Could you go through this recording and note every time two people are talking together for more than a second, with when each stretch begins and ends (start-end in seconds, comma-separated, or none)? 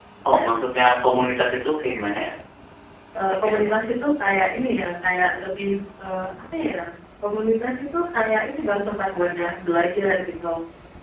none